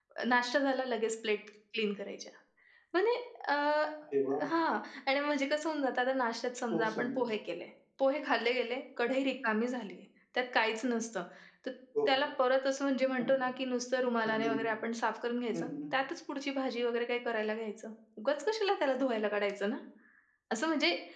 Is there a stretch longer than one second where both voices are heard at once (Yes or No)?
No